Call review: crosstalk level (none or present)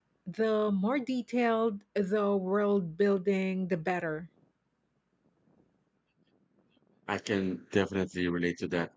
none